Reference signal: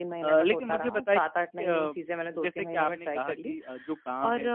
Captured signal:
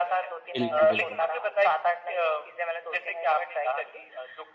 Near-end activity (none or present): present